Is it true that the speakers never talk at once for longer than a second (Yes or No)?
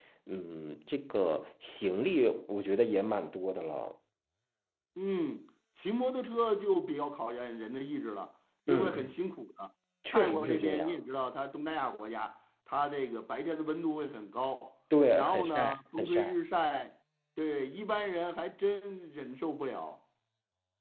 No